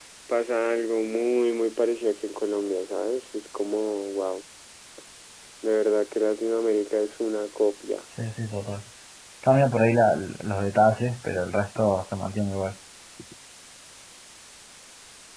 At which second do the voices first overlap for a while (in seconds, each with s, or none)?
none